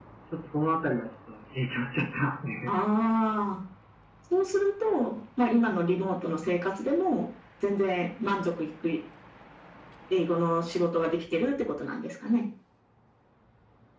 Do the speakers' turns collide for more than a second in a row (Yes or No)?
No